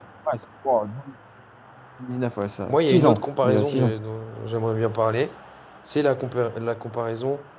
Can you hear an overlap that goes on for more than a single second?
Yes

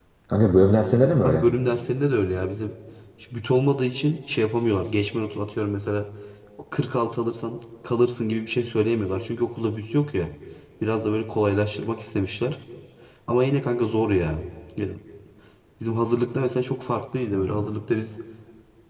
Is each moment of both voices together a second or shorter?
Yes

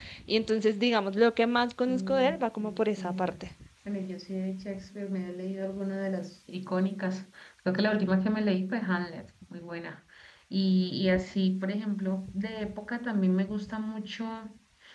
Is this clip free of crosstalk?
No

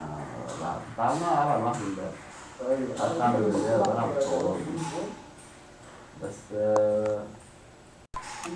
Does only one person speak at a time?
No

